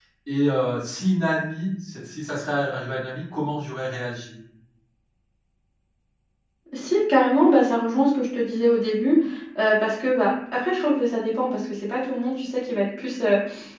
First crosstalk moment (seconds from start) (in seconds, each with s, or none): none